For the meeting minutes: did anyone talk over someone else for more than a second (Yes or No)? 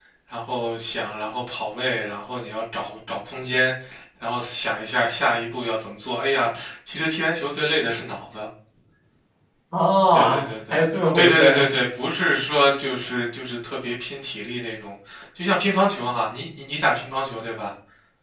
Yes